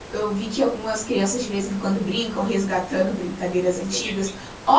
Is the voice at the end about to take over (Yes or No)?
No